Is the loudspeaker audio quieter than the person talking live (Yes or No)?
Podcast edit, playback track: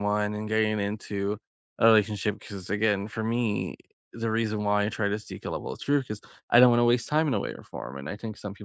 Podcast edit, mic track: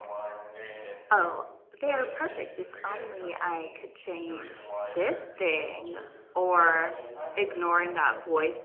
Yes